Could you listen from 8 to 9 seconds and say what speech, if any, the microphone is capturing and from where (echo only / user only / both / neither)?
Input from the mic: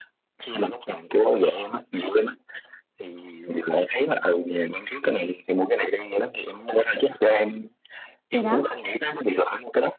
both